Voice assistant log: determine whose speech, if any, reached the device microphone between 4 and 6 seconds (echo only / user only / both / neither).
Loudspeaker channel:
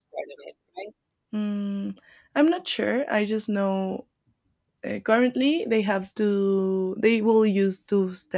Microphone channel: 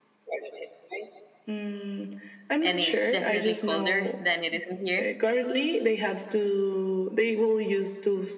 both